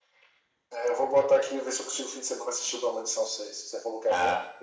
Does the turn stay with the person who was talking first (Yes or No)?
No